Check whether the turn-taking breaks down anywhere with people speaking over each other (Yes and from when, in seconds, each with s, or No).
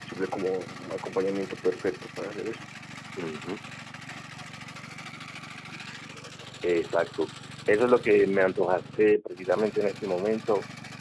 No